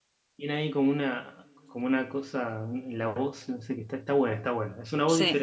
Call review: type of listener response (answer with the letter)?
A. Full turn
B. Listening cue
A